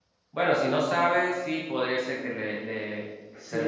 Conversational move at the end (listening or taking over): taking over